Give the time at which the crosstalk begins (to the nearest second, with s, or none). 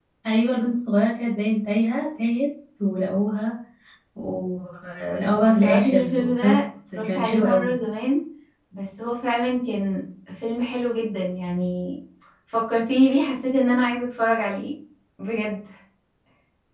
5 s